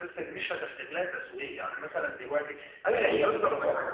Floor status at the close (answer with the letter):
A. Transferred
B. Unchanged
A